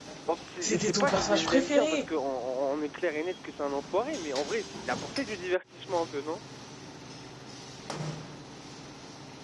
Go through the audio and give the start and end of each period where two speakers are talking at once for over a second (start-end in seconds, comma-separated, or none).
0.6-2.0